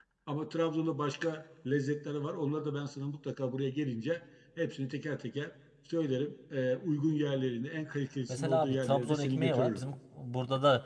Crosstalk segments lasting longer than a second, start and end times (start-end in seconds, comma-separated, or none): 8.3-9.8